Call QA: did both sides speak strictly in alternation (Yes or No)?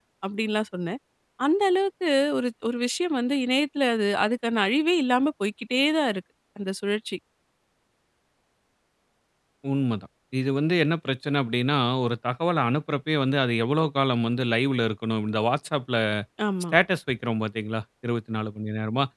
Yes